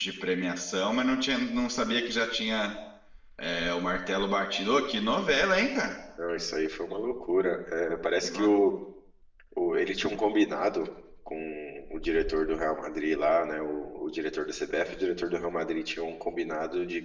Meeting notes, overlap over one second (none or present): none